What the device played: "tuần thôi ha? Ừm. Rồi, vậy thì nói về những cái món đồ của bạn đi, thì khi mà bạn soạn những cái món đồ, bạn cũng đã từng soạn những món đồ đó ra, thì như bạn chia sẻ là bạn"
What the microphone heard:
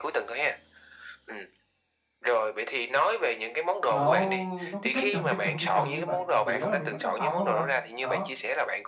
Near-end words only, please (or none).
nó nó cứ chất chồng, chất chồng, chất chồng như vậy mà chủ yếu là mình vứt trong phòng không à. Đó,